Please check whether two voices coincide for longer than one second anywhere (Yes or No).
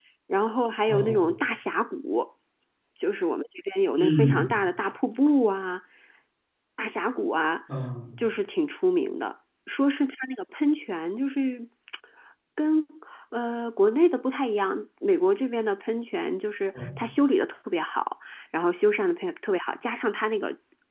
No